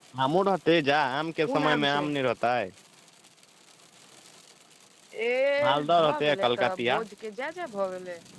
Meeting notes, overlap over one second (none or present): present